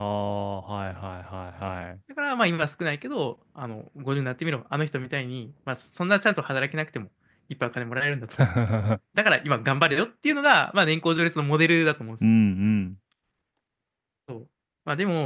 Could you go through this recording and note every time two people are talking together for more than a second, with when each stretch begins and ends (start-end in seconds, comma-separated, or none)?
none